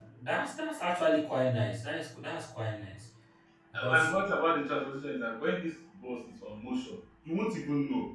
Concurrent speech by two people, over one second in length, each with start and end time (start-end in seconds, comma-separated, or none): none